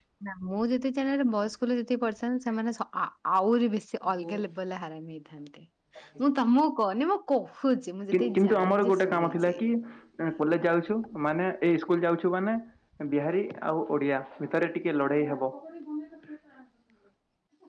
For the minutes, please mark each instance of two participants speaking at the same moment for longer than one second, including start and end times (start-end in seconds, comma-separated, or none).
8.1-9.6